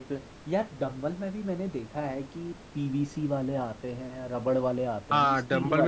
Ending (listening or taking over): taking over